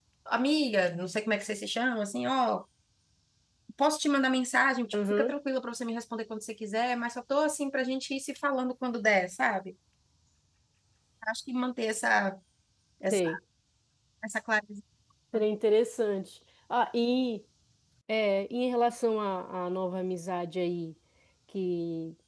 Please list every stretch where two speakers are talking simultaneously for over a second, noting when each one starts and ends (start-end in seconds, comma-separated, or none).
none